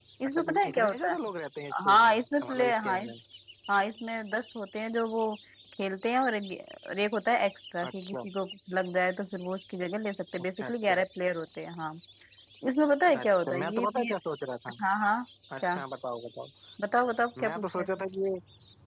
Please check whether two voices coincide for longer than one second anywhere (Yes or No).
Yes